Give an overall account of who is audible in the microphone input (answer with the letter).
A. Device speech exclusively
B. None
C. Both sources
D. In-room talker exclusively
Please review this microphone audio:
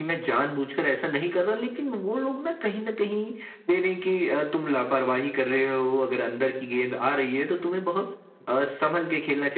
A